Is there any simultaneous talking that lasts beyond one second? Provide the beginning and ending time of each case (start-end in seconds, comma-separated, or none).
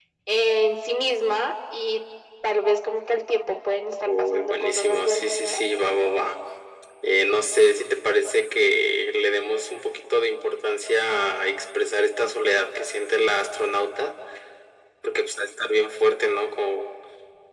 4.2-5.6